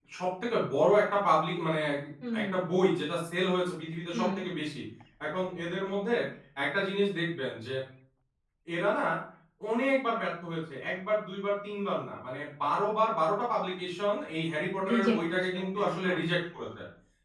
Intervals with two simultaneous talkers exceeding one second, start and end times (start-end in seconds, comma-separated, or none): 14.9-16.2